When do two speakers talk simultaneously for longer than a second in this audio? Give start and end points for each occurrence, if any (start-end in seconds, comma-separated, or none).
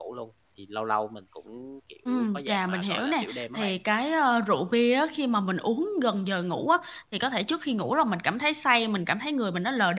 2.1-3.7